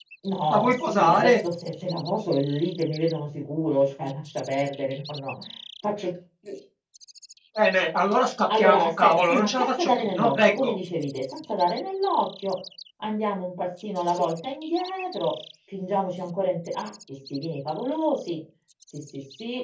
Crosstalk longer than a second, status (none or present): present